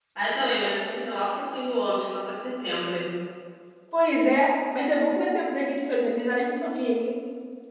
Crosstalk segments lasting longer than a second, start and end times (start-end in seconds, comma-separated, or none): none